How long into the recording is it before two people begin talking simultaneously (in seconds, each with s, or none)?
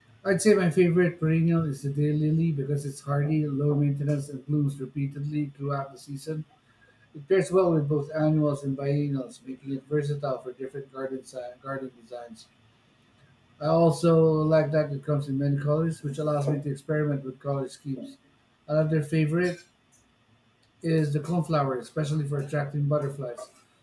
none